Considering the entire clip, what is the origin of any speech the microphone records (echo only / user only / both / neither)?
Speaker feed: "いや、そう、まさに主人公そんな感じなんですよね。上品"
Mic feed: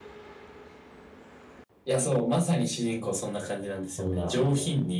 both